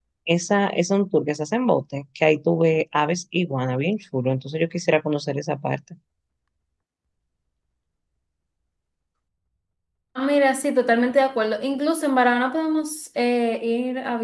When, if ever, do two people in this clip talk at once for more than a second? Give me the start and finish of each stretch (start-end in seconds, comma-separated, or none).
none